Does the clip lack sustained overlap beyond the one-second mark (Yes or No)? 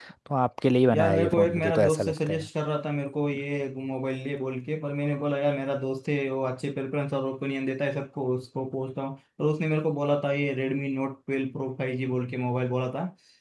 No